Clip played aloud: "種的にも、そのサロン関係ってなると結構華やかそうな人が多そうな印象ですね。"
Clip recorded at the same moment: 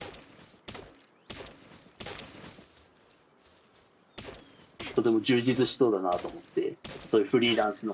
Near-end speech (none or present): present